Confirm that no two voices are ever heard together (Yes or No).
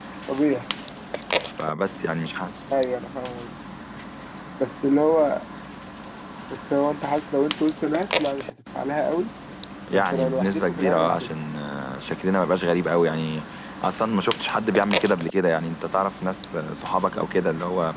No